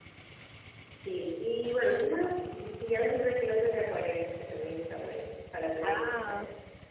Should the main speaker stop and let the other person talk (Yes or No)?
Yes